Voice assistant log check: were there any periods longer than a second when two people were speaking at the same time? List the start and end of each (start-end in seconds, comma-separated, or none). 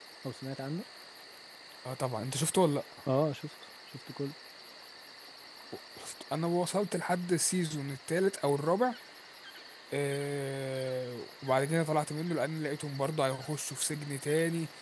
none